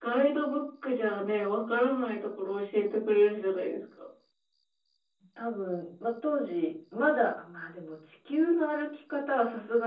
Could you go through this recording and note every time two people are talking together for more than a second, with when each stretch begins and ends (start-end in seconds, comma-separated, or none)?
none